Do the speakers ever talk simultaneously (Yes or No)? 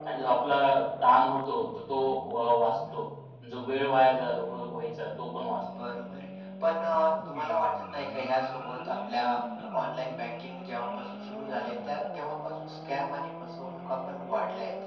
No